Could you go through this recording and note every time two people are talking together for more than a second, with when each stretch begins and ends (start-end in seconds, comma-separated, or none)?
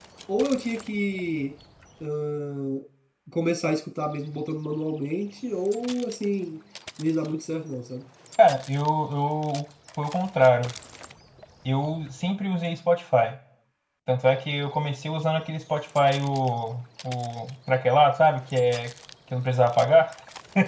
none